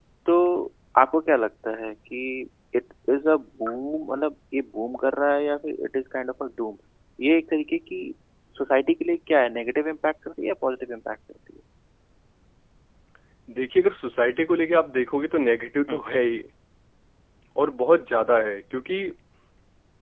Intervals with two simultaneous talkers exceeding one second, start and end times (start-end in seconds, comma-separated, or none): none